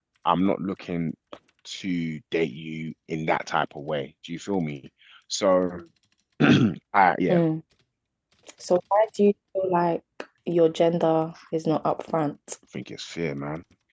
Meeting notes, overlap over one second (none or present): none